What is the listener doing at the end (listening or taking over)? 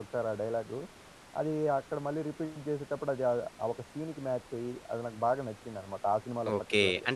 taking over